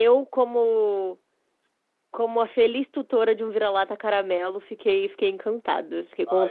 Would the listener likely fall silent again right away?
No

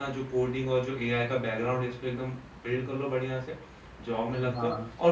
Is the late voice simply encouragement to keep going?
Yes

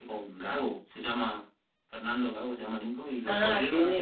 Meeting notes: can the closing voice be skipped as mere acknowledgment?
No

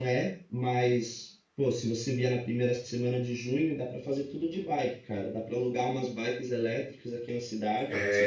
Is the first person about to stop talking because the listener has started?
Yes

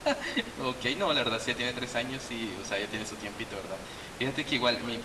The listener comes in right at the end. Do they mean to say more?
No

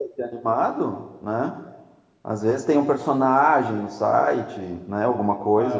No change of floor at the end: No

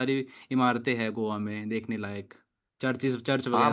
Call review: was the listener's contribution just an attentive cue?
No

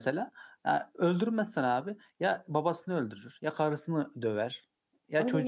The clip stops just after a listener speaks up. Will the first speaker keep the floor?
Yes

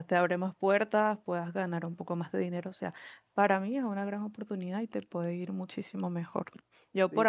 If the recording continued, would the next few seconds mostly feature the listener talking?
Yes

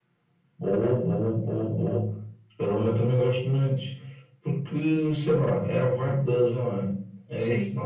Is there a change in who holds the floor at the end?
Yes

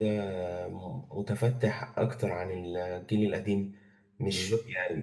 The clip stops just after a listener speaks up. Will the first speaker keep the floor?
Yes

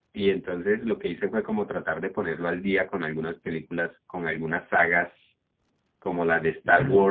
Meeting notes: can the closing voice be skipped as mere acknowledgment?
Yes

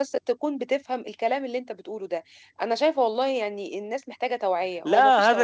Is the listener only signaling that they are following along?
No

